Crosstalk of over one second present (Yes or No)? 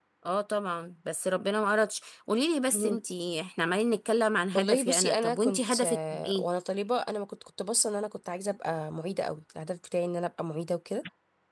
Yes